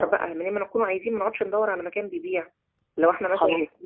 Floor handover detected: Yes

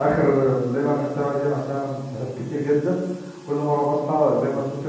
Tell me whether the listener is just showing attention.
Yes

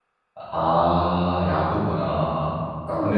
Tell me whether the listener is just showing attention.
Yes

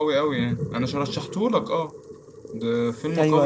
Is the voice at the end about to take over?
Yes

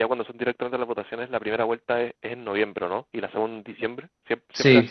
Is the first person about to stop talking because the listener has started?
Yes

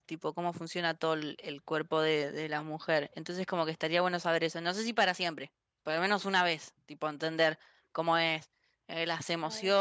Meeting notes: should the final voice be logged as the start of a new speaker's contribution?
No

